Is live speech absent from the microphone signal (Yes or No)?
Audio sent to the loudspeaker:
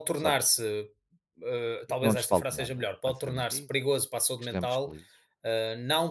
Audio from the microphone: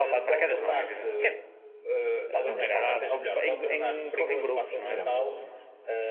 No